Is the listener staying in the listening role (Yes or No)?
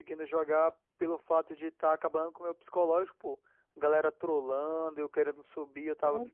No